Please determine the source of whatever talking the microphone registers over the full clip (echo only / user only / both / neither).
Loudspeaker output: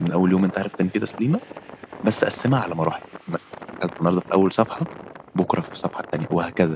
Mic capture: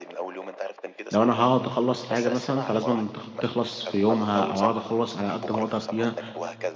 both